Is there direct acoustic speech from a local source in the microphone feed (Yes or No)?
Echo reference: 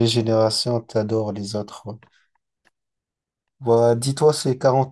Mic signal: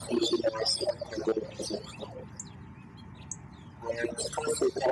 No